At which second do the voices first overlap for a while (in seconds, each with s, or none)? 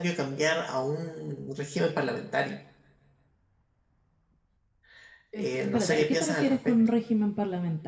5.4 s